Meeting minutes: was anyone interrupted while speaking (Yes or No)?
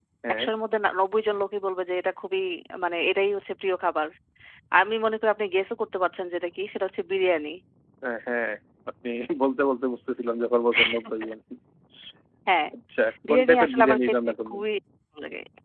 Yes